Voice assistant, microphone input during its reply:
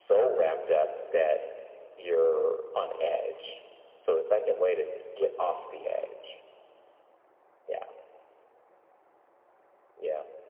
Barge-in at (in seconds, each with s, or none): none